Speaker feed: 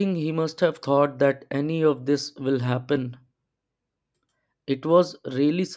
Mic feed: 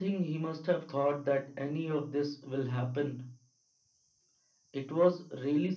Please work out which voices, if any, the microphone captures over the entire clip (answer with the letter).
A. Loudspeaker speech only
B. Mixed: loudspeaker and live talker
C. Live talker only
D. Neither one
A